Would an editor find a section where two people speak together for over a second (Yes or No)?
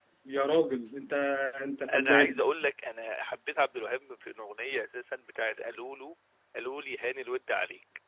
No